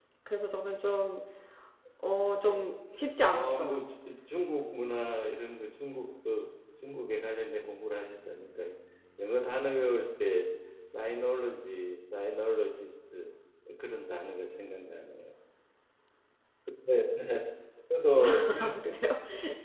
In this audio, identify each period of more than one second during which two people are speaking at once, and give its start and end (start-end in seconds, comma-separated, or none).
none